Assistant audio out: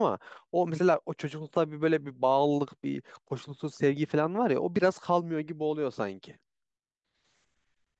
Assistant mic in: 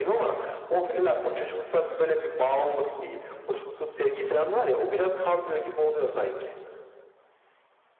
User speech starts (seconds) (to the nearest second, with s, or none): none